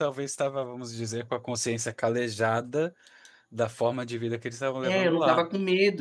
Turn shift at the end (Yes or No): Yes